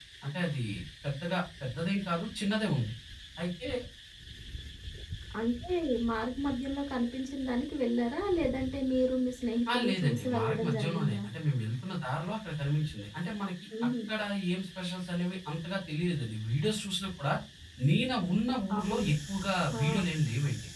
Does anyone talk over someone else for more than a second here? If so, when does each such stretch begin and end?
9.7-11.2

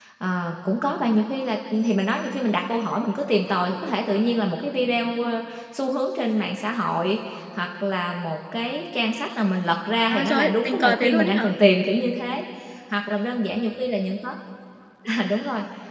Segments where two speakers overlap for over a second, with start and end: 10.1-11.5

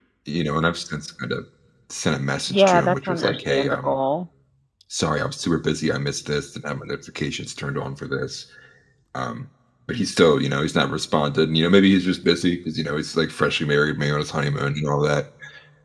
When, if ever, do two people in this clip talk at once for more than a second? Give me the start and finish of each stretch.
2.5-4.0

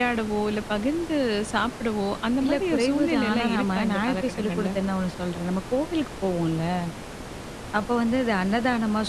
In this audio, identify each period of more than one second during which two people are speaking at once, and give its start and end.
2.4-4.7

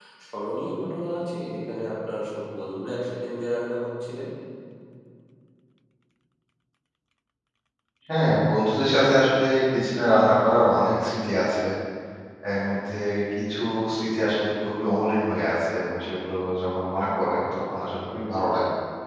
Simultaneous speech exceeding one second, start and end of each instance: none

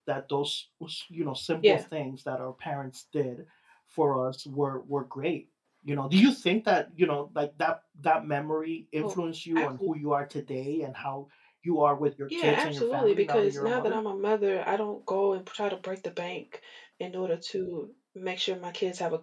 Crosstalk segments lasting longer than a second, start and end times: 12.4-14.0

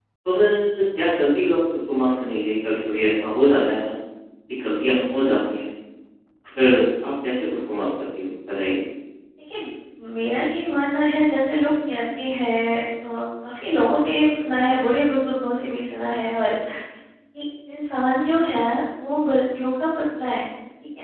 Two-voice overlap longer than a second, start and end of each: none

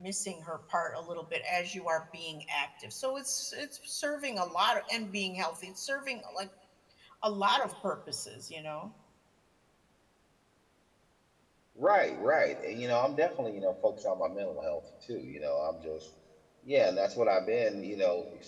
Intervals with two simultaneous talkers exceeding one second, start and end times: none

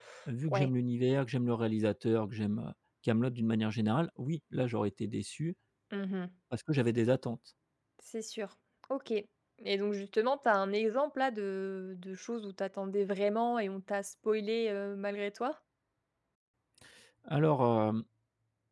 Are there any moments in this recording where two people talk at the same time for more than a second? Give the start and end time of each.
none

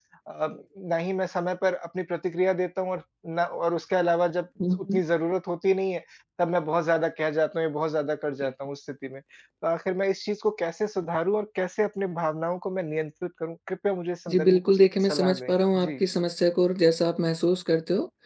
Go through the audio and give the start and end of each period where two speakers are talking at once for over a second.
14.3-15.9

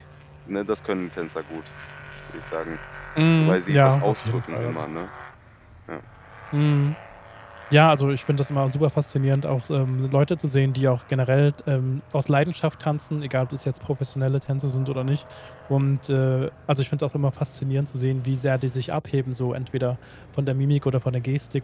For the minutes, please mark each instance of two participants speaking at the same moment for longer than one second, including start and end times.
3.4-4.8

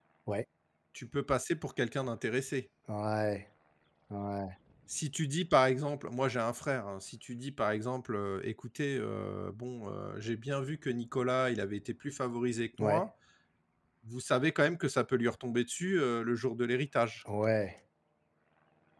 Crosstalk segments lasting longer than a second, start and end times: none

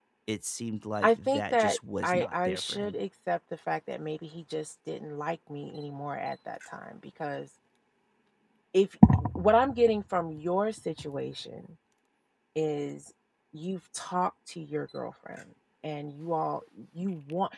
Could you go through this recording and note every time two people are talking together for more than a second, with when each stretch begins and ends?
1.0-3.0

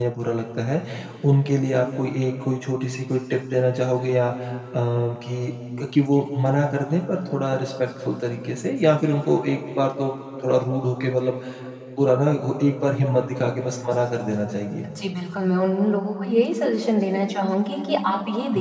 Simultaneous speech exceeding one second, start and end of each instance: none

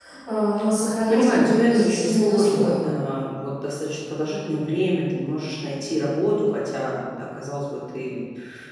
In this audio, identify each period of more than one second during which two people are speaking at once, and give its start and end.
1.1-2.8

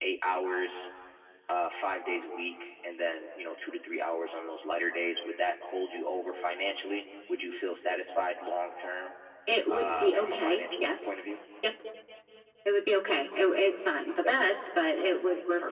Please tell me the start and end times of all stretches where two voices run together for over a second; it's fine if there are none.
9.7-11.1

